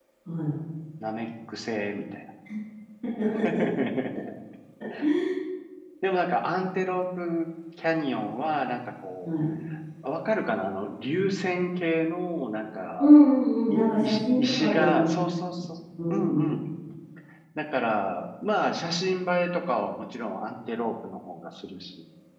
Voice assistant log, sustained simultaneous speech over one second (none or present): present